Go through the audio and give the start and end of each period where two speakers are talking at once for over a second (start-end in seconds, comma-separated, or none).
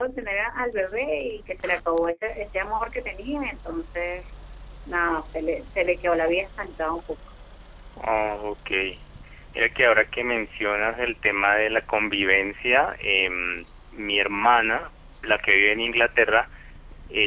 none